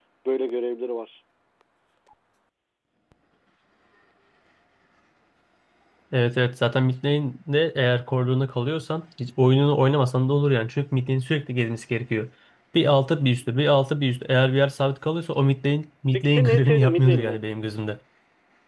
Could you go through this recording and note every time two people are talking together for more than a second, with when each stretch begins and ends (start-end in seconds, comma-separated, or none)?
16.1-17.4